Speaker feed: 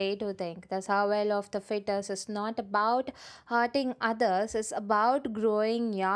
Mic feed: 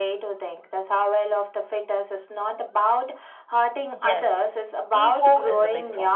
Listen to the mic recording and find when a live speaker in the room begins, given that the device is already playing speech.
3.9 s

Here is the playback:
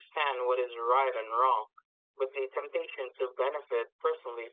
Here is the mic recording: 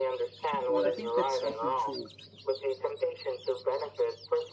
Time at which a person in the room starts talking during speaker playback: 0.7 s

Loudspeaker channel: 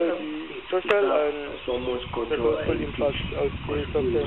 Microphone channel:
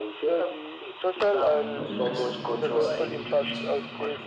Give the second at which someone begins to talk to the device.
1.5 s

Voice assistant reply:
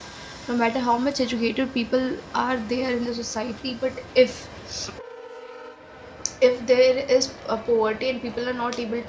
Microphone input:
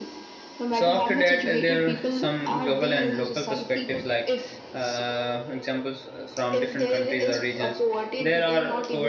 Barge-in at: 0.7 s

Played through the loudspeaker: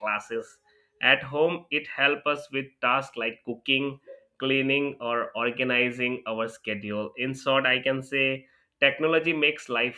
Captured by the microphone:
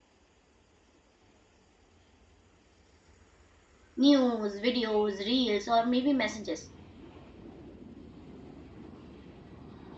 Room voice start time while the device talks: 4.0 s

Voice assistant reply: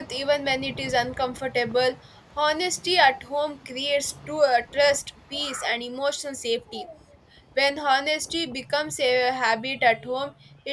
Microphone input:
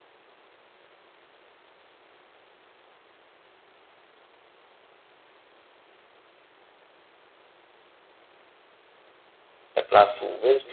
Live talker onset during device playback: 9.7 s

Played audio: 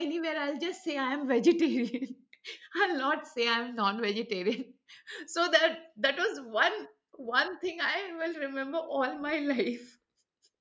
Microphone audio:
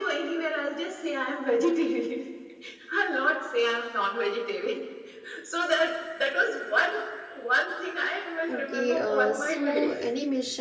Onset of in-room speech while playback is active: 8.5 s

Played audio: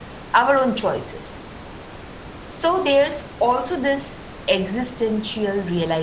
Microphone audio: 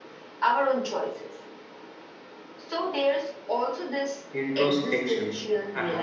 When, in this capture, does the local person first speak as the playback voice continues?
4.3 s

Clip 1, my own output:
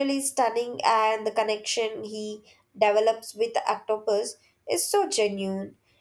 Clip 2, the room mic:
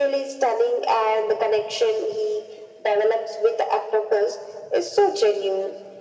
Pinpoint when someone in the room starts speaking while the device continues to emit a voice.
none

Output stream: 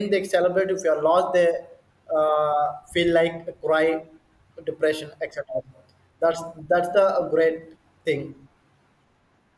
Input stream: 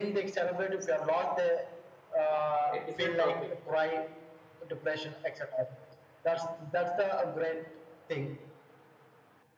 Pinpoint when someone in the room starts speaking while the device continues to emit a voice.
2.7 s

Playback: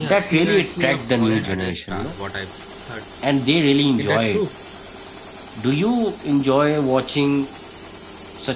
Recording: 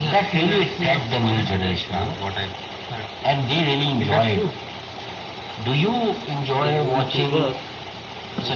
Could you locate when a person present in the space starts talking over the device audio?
6.6 s

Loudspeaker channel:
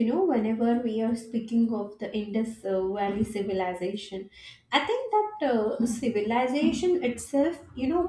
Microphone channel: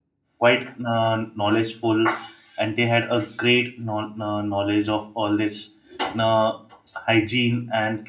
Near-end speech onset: 0.4 s

